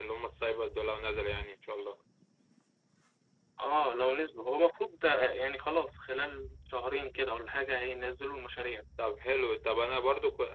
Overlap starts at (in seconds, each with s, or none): none